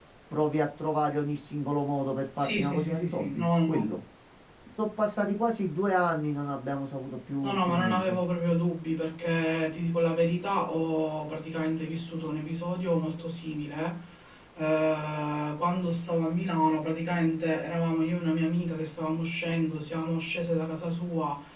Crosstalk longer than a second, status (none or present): present